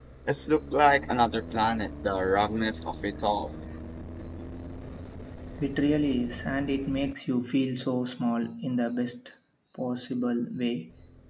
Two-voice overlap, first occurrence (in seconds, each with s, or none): none